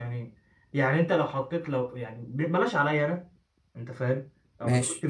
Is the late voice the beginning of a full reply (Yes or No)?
No